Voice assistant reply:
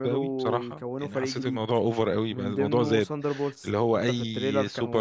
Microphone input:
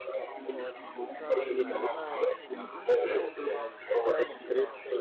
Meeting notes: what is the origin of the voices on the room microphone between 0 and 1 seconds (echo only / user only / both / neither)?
both